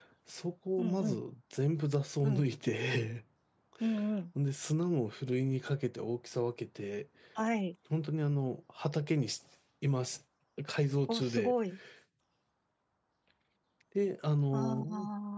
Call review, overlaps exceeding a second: none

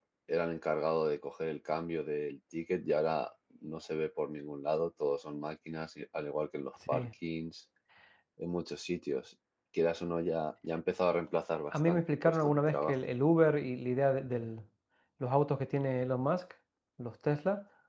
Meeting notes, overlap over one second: present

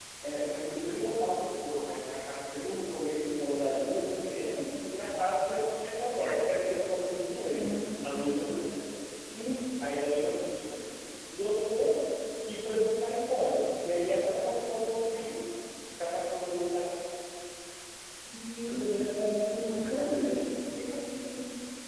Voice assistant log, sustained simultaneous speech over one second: present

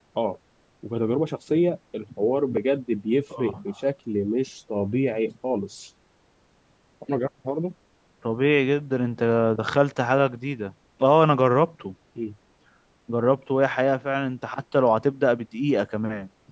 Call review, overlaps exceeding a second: none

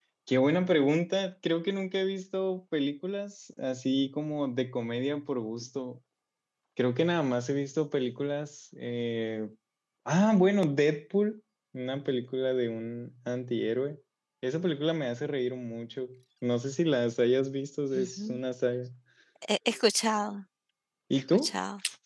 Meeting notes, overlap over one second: none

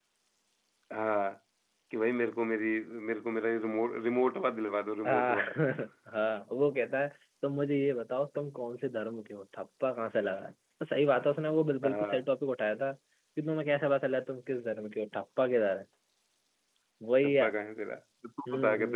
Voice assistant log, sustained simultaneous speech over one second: none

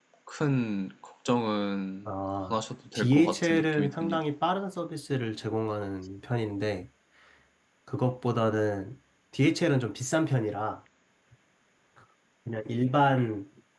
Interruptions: present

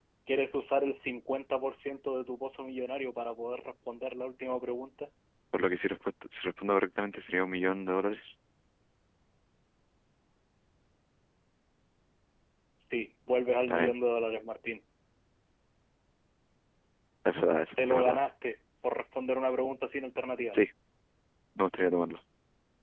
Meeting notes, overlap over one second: none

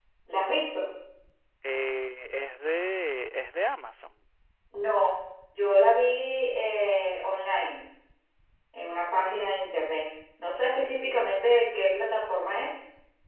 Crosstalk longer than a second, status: none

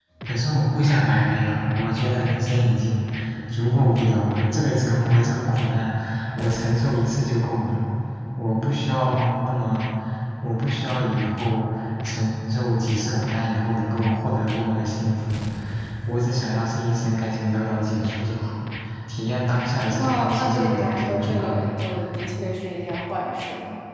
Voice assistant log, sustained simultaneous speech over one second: present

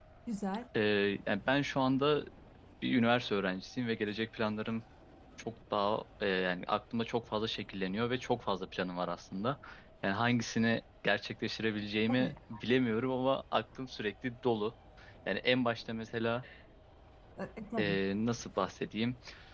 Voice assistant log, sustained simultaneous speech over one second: none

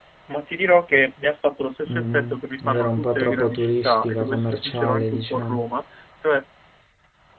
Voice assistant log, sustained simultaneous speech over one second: present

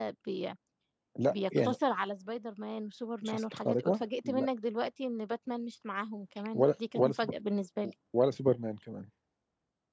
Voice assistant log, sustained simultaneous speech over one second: present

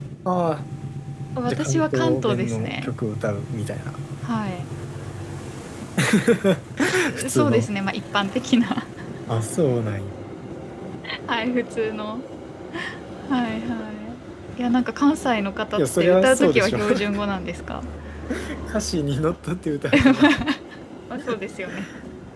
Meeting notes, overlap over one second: present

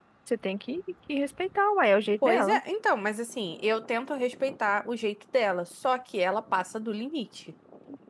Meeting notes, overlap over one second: none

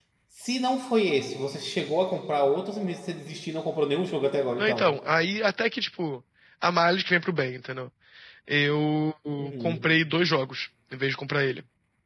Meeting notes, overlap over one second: none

